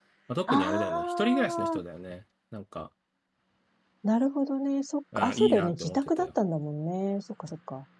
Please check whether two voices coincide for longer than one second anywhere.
Yes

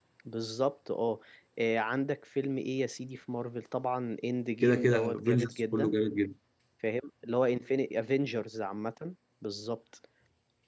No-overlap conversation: No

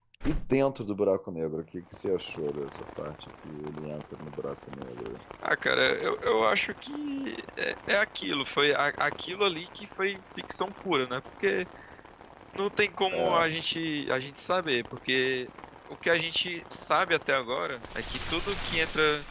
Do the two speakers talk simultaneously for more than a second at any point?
No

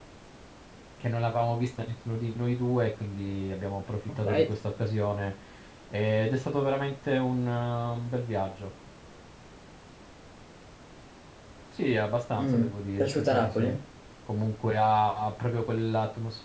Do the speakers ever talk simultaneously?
Yes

